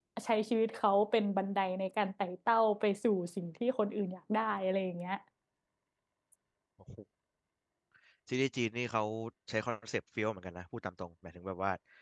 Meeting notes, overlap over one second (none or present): none